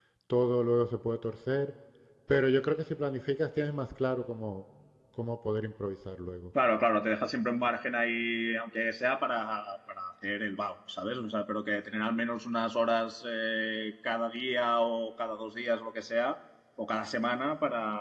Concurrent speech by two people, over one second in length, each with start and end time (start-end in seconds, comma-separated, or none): none